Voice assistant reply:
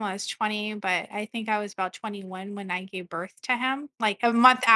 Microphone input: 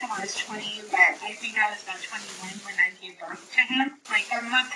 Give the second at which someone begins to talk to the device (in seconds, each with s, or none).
none